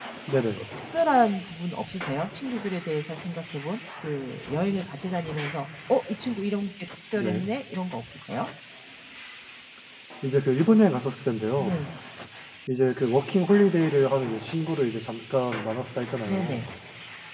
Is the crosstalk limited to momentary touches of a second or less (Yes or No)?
Yes